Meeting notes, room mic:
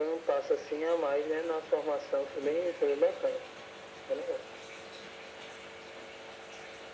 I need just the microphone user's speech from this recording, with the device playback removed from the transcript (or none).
none